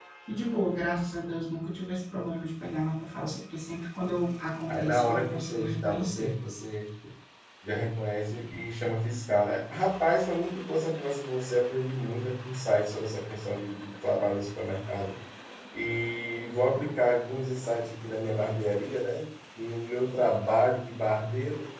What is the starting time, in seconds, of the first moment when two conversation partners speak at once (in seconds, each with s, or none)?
4.7 s